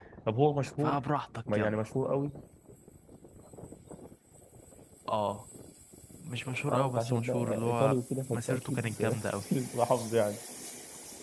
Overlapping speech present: Yes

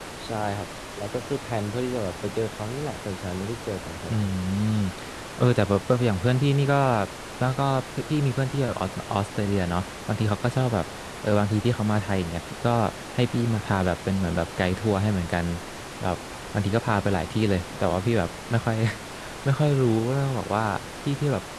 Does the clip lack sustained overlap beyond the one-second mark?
Yes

